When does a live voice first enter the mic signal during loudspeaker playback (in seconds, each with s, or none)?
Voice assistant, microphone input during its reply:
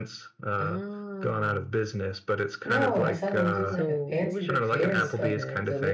2.6 s